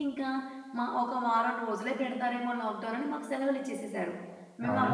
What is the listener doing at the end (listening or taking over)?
listening